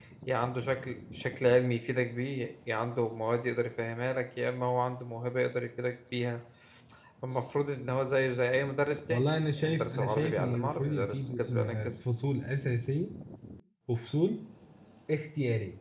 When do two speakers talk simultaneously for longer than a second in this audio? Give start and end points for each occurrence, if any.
9.1-11.9

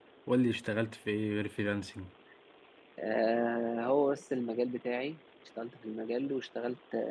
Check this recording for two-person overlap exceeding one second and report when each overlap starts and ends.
none

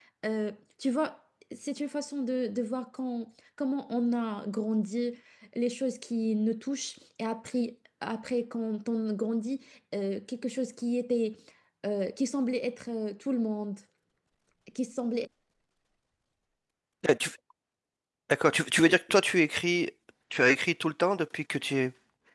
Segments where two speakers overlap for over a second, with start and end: none

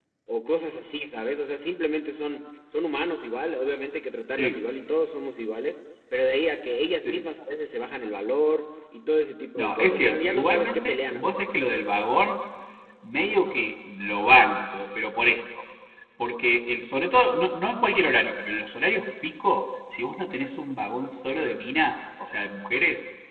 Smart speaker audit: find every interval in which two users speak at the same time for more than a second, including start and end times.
9.6-11.4

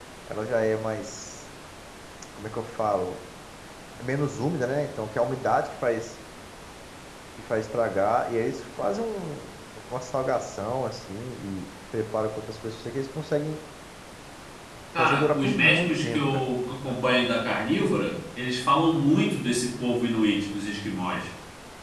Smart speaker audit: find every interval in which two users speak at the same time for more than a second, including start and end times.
14.9-16.4

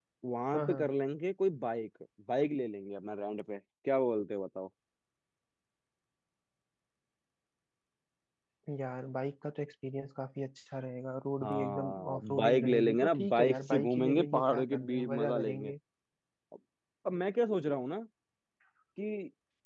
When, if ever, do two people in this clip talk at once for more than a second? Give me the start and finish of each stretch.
11.4-15.7

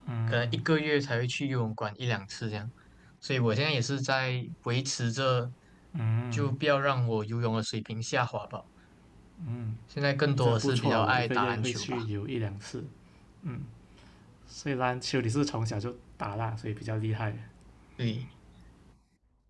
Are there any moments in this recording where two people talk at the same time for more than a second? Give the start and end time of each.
10.3-12.0

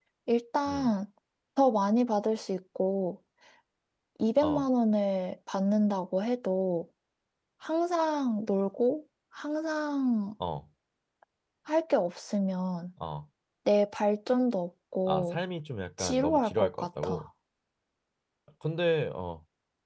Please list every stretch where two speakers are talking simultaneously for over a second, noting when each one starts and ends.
16.0-17.2

